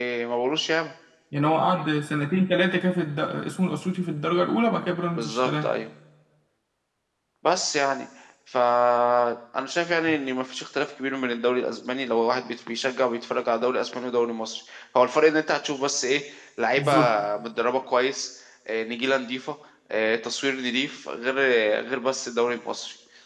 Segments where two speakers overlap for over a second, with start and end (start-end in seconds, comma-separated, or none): none